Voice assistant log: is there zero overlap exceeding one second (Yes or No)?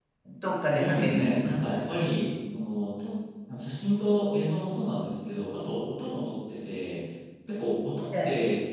No